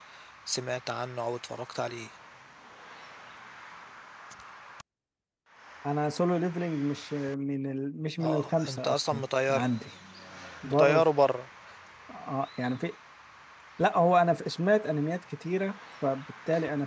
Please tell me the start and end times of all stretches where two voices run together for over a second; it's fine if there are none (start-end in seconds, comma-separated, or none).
8.2-9.8